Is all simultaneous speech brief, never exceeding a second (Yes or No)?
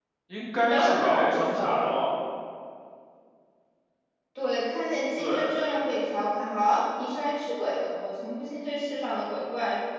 No